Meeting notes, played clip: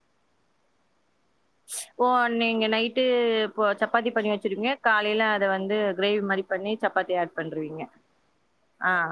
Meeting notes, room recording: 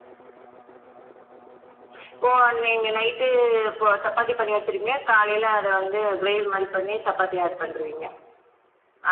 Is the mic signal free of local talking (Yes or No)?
Yes